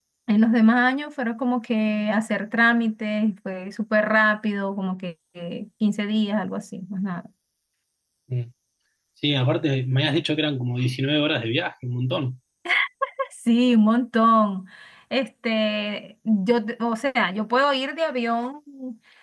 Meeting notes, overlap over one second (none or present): none